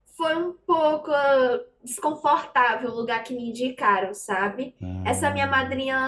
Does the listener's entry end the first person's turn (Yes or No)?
No